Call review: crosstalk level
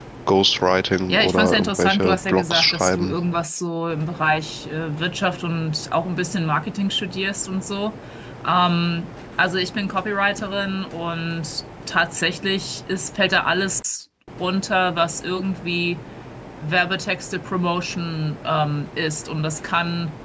present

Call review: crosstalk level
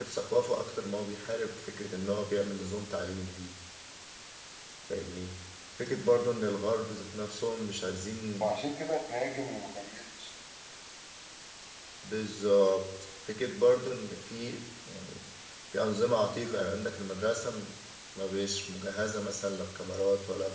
none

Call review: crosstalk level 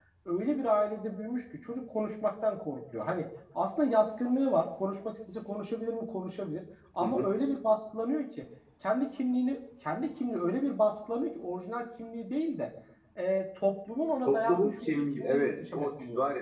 present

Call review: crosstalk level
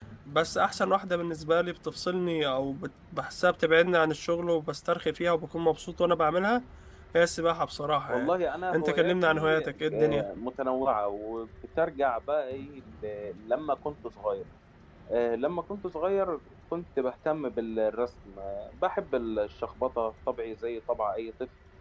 present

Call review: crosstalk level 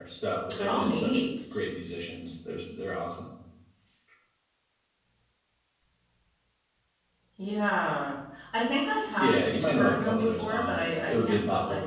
present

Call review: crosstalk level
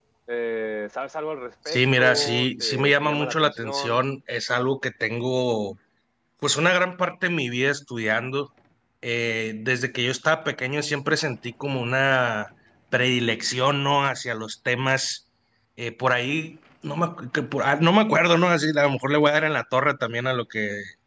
present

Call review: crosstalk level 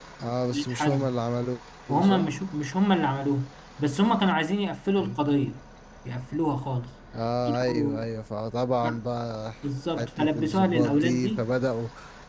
present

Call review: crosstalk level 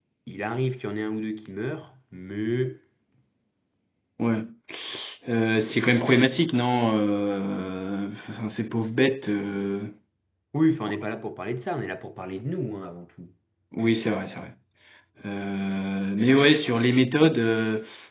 none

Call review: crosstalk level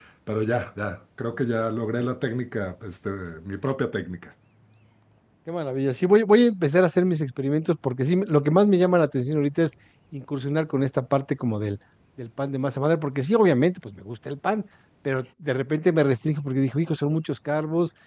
none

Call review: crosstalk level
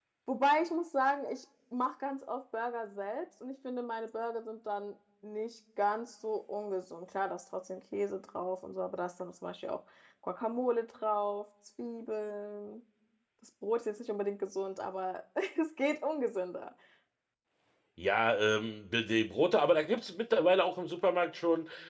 none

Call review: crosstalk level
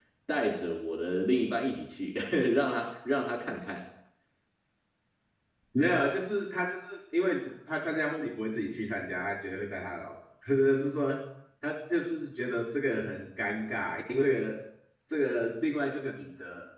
none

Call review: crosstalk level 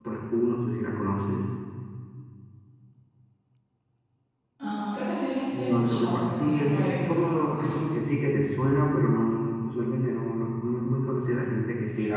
present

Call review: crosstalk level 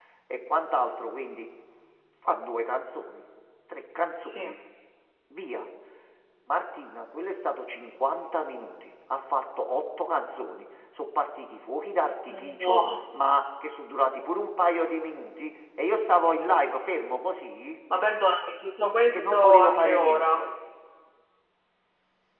present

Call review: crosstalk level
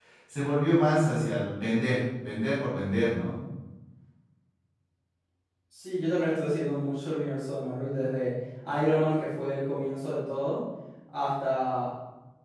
none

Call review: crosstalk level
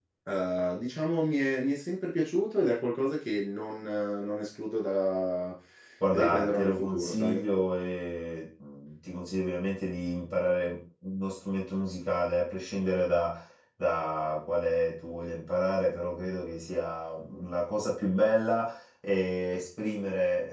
present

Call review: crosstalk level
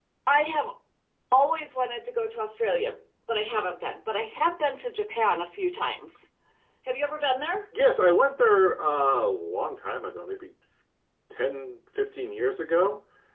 none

